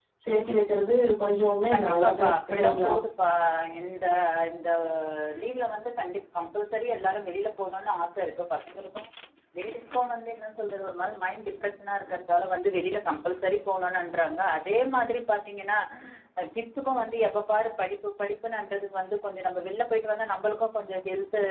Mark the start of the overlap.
2 s

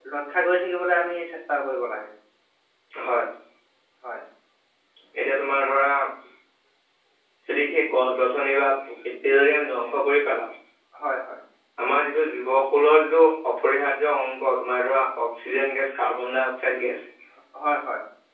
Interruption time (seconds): none

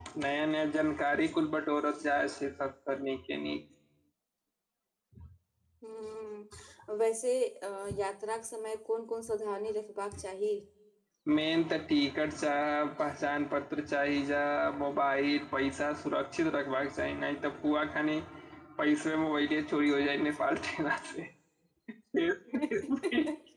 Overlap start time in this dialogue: none

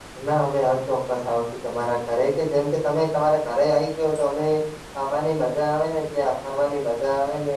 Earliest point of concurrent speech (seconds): none

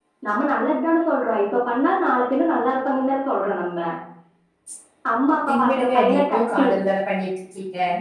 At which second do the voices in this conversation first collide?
5 s

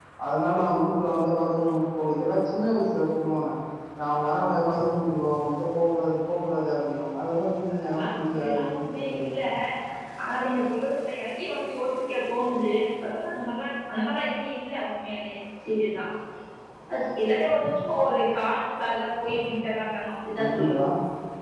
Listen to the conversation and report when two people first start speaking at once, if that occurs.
8 s

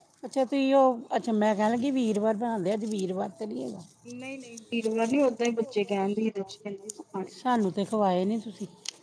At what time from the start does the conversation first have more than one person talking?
none

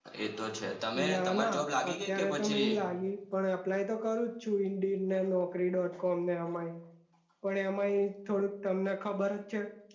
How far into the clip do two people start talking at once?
1 s

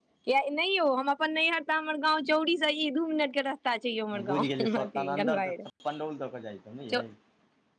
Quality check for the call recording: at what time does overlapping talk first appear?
4 s

